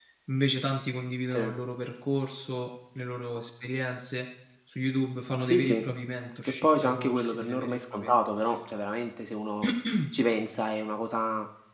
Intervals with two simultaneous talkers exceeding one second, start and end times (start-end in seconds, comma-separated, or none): 6.6-8.1